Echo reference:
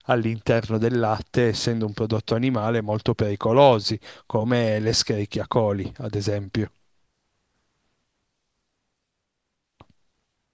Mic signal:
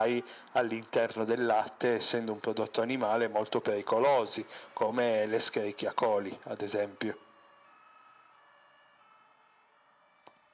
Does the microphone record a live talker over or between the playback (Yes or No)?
No